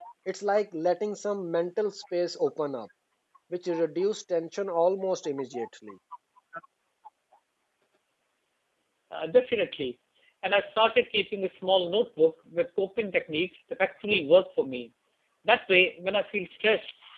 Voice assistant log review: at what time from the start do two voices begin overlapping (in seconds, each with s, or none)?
none